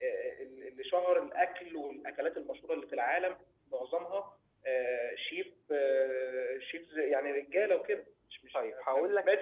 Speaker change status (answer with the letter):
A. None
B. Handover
B